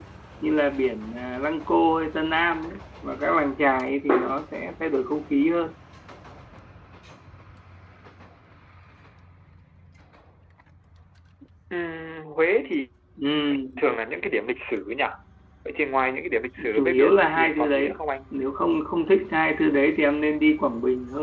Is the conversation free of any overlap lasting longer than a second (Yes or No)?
No